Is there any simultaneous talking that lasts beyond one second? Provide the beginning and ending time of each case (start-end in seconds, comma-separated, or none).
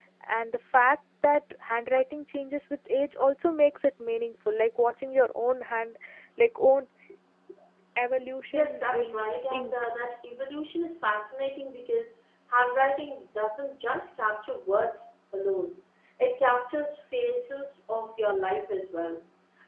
8.5-9.7